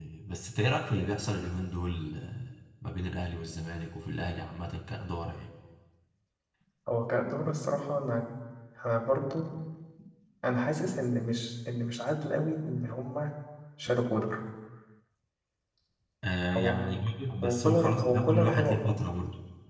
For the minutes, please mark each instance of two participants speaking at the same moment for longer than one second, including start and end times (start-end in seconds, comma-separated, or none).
17.4-18.9